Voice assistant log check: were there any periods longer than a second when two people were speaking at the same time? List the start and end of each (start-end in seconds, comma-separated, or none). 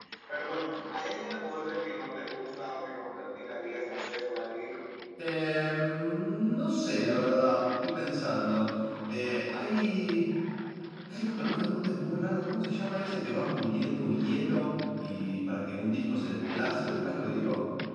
none